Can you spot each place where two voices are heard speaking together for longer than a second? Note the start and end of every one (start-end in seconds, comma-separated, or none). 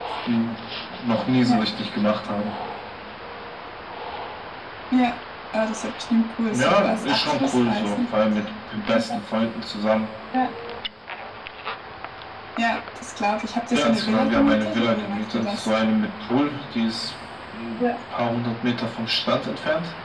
6.5-8.0, 13.7-15.7